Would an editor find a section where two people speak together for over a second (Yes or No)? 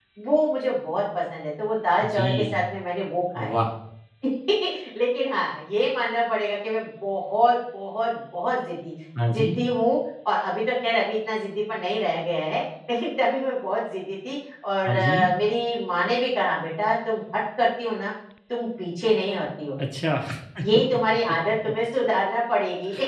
No